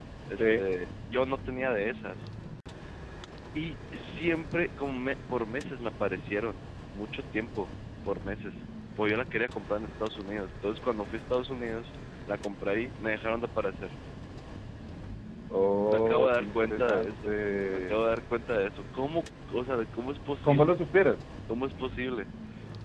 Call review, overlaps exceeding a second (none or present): present